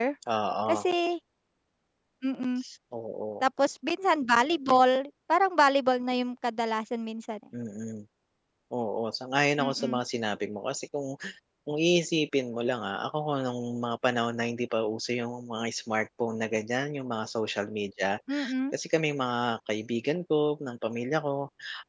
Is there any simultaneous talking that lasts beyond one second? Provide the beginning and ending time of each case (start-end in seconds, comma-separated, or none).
none